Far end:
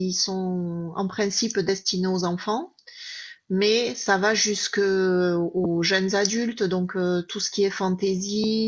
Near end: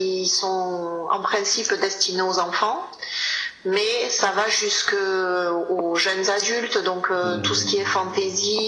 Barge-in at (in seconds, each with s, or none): 7.2 s